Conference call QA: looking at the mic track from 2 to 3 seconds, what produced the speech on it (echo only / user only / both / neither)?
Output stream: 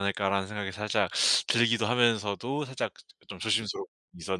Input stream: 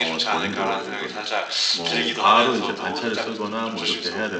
both